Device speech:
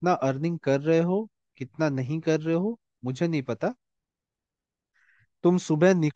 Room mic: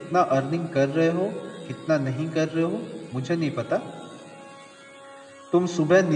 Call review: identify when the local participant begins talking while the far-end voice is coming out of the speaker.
none

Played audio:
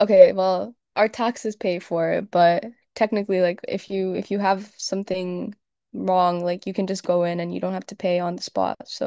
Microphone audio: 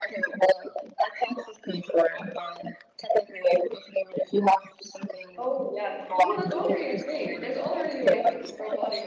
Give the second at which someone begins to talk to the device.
5.4 s

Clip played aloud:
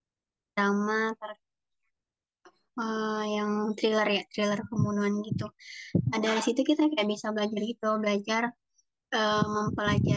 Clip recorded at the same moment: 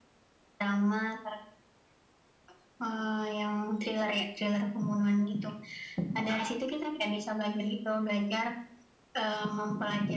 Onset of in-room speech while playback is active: none

